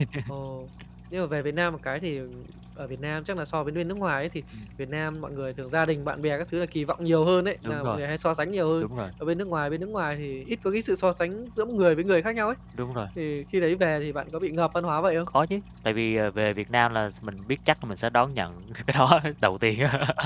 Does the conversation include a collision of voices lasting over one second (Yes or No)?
No